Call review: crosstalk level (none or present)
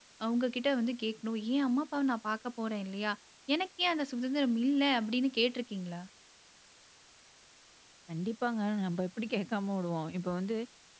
none